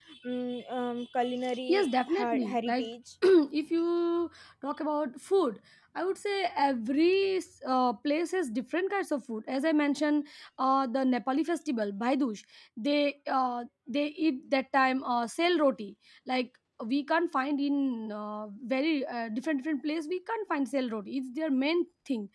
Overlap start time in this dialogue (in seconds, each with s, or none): 1.4 s